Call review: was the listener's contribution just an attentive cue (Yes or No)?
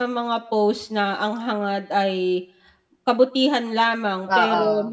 Yes